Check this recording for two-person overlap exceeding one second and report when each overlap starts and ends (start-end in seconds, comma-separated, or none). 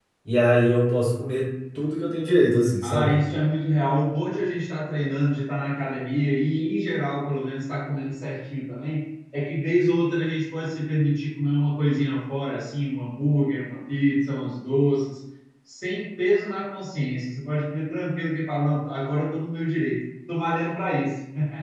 none